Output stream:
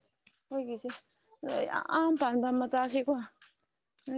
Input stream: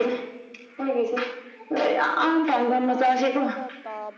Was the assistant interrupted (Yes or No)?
Yes